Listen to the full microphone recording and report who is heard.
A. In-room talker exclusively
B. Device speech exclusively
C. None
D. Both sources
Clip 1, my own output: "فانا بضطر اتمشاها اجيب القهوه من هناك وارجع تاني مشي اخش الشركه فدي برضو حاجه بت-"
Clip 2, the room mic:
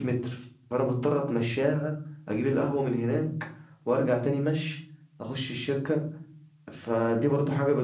B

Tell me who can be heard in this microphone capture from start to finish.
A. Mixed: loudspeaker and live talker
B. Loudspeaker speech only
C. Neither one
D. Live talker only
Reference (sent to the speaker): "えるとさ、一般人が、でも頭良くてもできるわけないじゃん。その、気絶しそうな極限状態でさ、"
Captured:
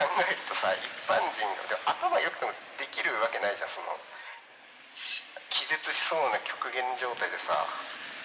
B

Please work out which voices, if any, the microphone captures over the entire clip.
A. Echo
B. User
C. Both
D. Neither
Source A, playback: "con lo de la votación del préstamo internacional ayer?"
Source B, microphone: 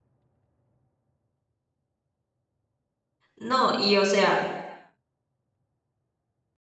B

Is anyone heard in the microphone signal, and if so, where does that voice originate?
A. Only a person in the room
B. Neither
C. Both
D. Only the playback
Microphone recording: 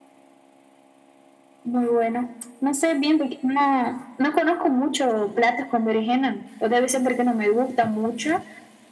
D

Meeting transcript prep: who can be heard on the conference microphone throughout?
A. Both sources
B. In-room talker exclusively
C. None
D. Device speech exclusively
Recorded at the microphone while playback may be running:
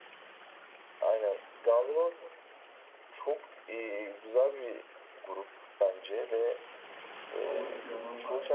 A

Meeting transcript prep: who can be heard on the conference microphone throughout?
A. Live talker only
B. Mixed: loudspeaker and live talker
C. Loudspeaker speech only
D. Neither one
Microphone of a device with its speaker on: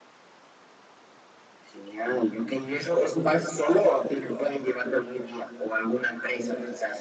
C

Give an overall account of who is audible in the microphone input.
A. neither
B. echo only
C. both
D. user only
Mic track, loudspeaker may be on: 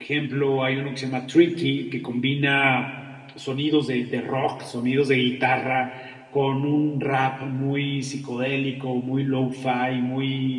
D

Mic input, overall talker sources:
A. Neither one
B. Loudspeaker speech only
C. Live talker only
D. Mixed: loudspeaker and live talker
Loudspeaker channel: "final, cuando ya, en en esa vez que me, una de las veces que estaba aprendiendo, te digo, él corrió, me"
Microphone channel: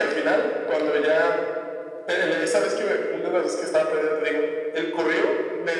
B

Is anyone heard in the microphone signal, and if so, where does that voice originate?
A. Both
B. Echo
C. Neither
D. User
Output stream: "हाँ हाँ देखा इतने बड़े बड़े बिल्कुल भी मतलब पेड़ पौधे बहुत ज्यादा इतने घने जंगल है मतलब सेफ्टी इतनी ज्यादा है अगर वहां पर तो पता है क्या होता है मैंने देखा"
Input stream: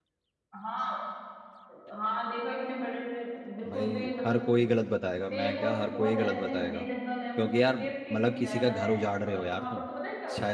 A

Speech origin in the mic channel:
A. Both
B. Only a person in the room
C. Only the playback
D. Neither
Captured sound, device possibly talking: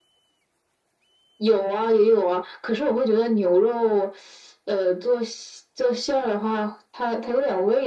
C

